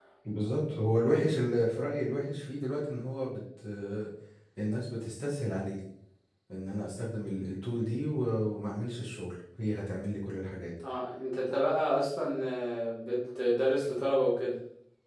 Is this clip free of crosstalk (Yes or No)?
Yes